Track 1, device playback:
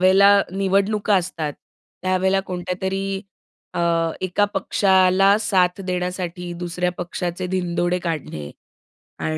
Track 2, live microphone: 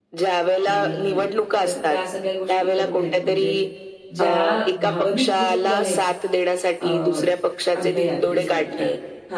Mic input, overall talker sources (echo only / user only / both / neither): both